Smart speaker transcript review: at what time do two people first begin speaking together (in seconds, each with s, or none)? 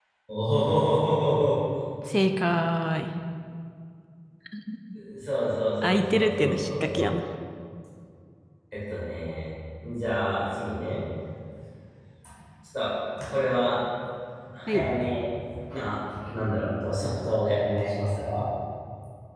5.8 s